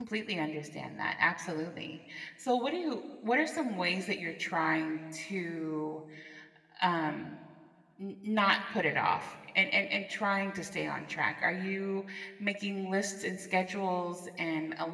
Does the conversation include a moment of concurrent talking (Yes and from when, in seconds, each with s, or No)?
No